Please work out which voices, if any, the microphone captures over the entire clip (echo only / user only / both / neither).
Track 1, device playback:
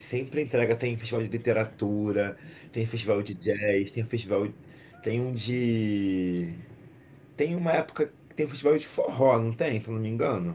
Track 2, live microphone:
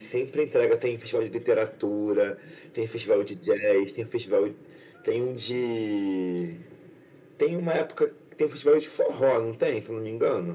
echo only